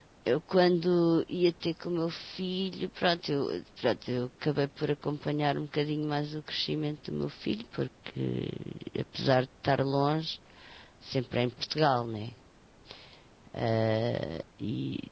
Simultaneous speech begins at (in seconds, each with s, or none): none